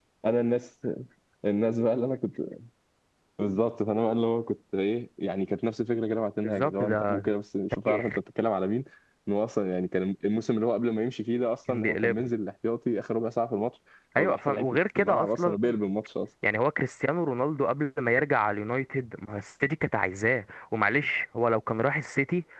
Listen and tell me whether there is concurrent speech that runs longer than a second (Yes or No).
Yes